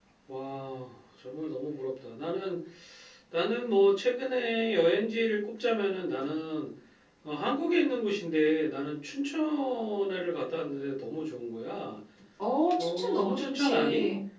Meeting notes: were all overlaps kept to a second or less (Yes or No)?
No